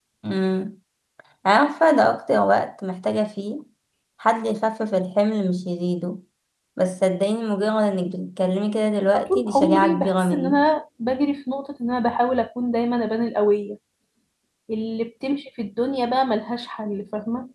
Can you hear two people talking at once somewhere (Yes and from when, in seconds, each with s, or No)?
Yes, from 9.1 s